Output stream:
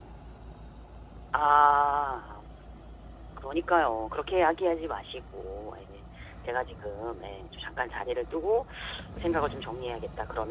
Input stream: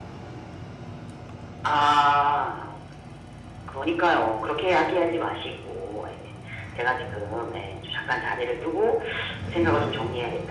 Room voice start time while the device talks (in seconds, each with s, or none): none